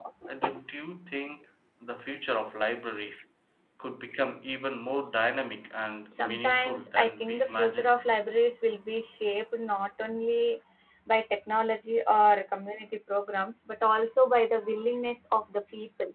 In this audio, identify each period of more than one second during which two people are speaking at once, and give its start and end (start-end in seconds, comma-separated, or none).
6.1-7.9